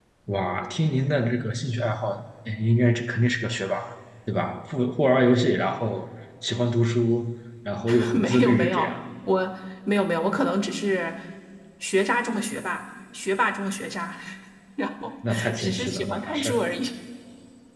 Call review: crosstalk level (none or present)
present